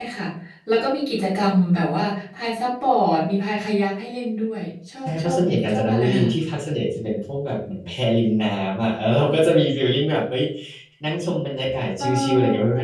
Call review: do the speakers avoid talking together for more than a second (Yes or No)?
No